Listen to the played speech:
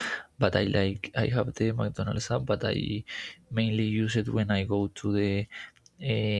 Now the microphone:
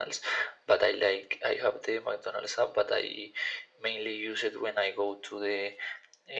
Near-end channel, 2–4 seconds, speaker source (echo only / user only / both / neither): echo only